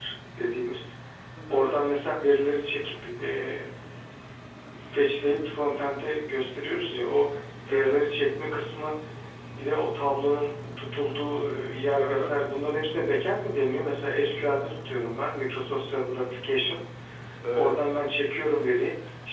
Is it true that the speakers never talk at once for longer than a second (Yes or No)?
Yes